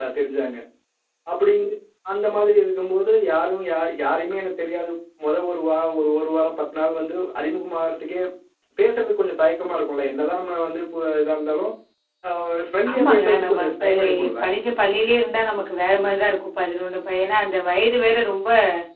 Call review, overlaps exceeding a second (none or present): present